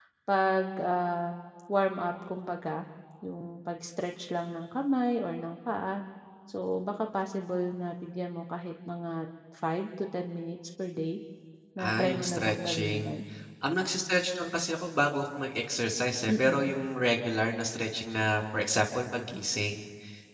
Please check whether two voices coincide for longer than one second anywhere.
Yes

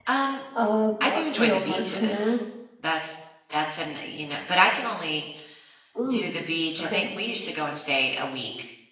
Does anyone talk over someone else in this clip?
Yes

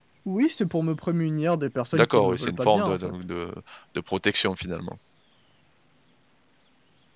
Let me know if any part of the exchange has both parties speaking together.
Yes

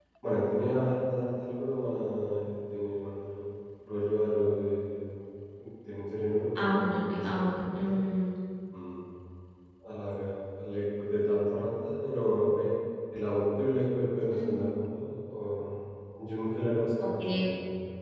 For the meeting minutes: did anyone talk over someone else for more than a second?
Yes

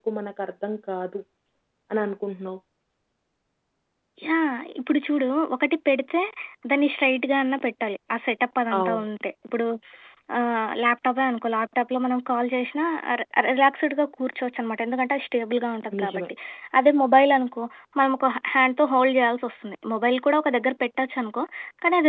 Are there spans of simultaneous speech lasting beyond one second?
No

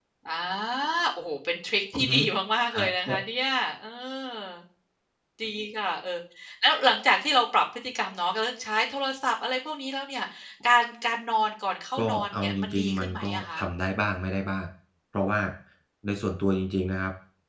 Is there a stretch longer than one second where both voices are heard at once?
Yes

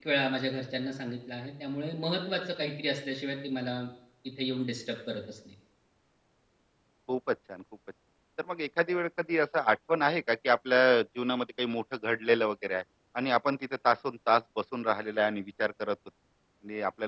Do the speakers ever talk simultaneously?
No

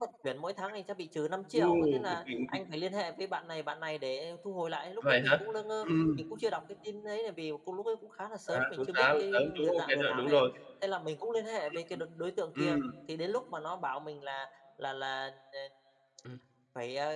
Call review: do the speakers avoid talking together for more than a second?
No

